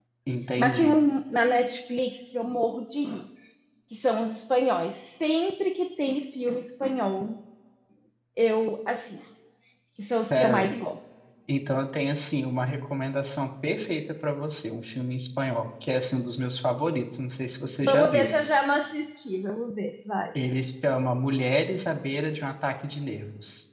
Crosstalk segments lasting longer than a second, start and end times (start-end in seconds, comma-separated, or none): none